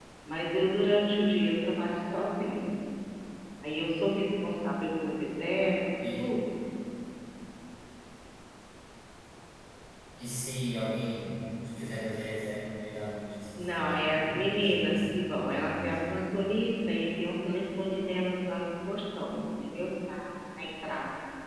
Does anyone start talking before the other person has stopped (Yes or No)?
Yes